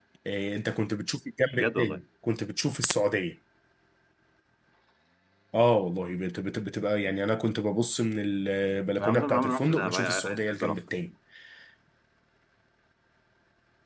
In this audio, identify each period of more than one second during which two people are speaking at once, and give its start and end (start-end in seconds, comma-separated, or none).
9.0-10.8